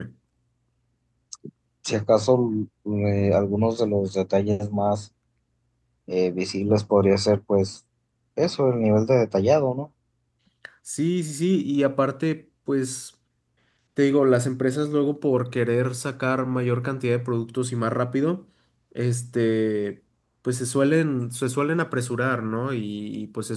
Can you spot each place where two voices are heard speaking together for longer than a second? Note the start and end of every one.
none

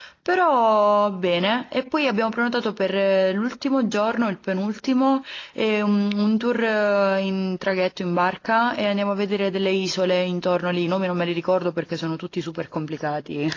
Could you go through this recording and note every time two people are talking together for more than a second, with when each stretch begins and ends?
none

